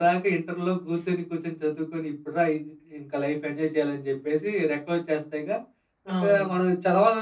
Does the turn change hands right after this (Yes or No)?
No